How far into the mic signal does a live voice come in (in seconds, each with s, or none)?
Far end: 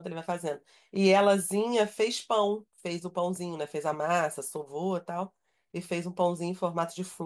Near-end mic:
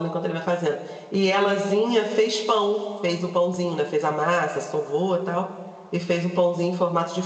none